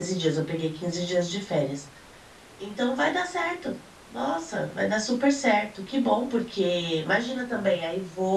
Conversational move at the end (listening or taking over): listening